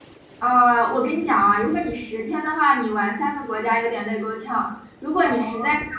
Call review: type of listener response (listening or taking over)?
listening